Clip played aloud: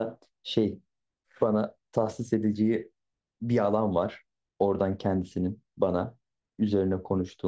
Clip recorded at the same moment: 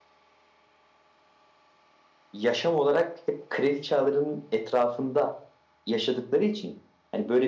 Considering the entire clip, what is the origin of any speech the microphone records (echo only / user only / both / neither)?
user only